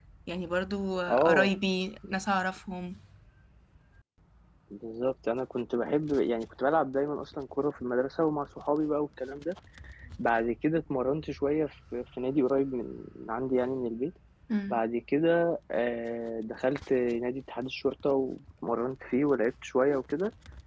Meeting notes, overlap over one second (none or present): none